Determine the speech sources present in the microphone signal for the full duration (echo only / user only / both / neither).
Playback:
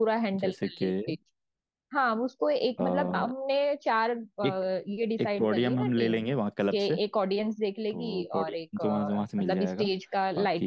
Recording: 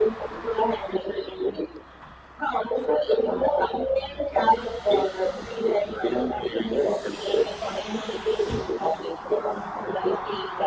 echo only